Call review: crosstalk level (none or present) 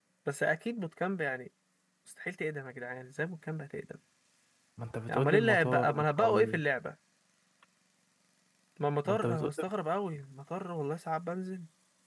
present